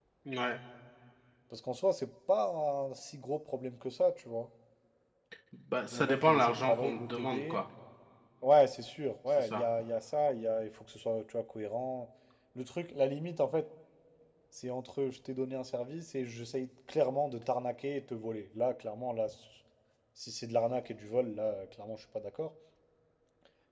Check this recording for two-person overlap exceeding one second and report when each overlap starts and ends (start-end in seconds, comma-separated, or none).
5.9-7.6